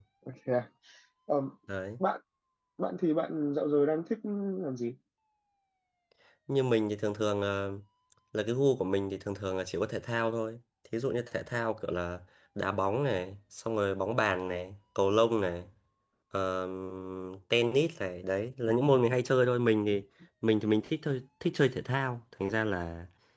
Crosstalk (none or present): none